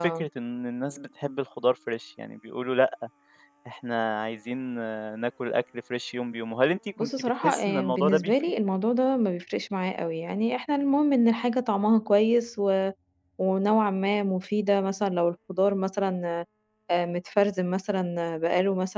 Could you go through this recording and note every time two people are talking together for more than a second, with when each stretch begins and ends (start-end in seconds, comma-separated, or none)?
7.0-8.3